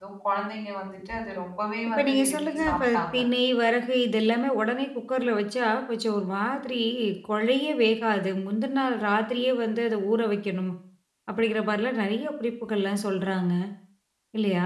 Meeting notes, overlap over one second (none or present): present